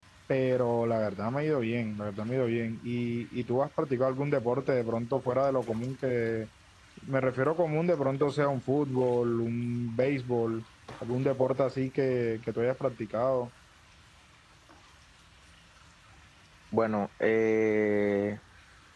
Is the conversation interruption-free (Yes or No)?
Yes